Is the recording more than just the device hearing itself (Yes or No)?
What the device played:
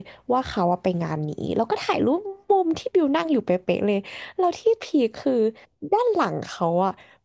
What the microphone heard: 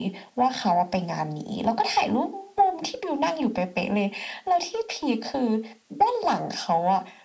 No